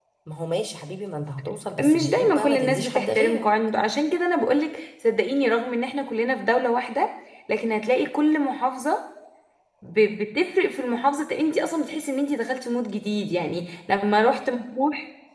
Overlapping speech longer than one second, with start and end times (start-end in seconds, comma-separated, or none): 1.8-3.5